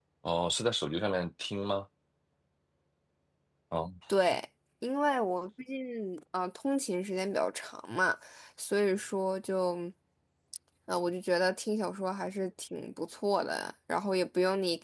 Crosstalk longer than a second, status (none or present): none